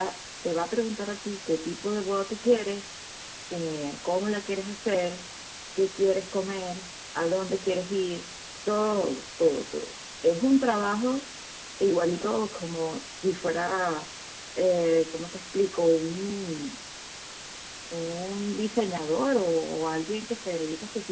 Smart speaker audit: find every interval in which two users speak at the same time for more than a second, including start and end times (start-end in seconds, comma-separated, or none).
none